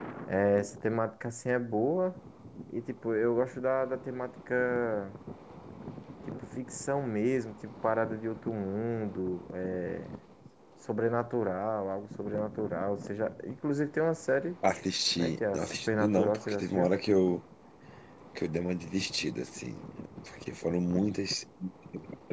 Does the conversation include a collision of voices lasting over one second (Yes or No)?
Yes